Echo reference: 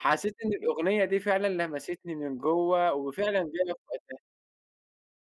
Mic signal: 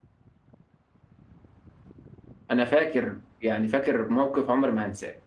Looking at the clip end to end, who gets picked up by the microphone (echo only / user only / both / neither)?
user only